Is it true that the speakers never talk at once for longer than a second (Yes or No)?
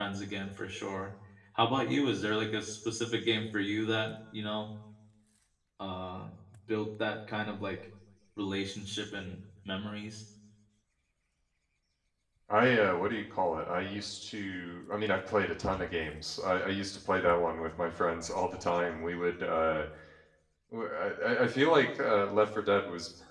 Yes